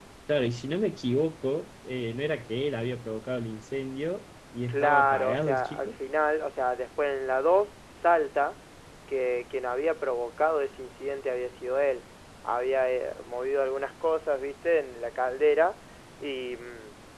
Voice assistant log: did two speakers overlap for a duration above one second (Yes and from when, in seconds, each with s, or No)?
Yes, from 4.7 s